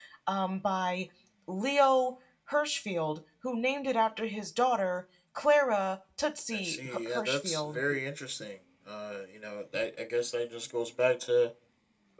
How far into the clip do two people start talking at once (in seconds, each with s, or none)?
6.5 s